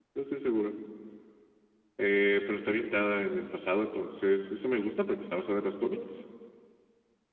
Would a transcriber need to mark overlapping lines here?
No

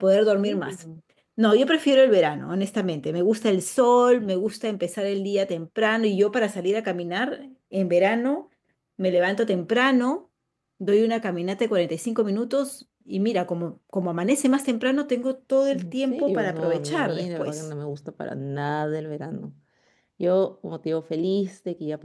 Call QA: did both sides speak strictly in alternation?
No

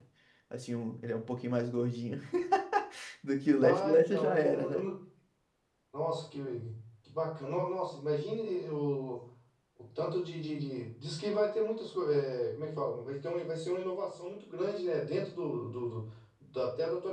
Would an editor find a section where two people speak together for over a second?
Yes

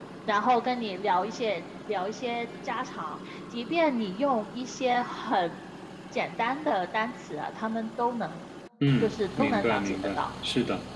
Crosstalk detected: Yes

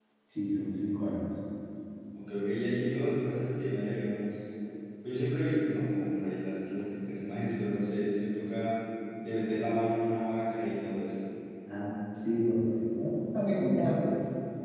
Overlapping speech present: No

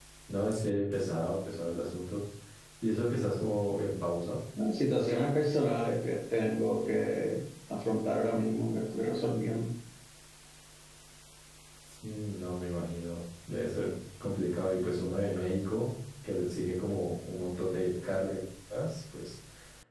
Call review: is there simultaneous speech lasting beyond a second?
No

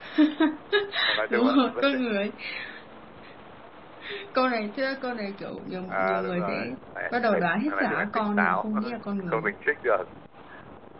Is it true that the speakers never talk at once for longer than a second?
No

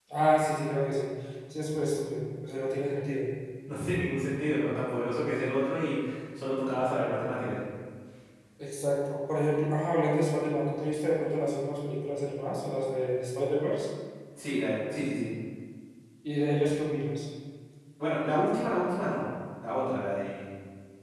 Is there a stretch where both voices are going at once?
No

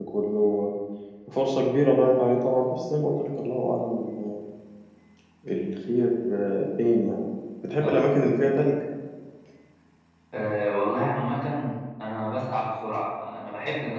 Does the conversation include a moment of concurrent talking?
No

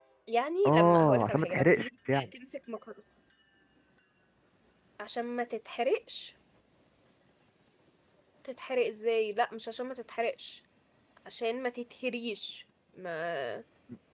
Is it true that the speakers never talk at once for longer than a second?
No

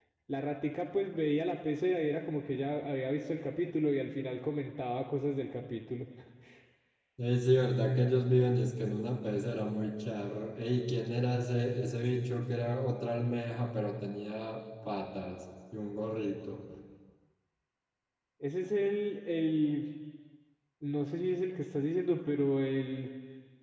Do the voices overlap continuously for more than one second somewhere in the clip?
No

